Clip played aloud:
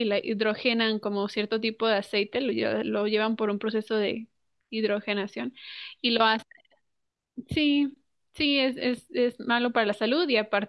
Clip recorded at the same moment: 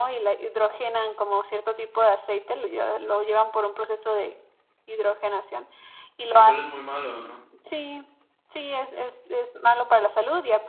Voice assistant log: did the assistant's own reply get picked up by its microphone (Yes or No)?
Yes